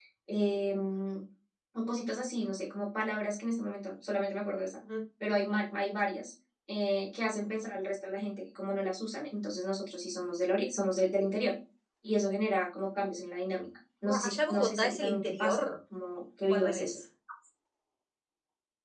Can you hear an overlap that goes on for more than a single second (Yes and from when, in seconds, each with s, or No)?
Yes, from 14.2 s